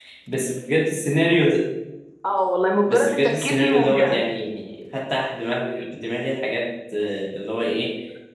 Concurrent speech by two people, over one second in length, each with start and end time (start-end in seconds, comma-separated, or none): 2.9-4.2